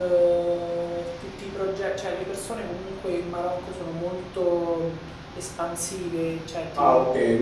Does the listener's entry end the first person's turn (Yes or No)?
Yes